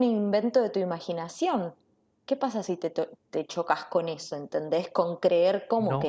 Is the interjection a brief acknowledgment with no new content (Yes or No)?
No